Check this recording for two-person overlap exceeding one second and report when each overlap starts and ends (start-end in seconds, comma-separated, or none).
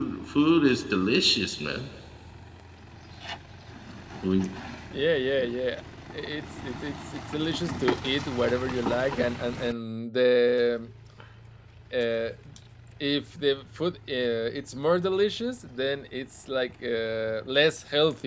none